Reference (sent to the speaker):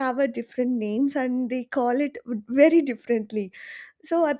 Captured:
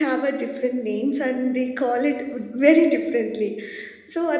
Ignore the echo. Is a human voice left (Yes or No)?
No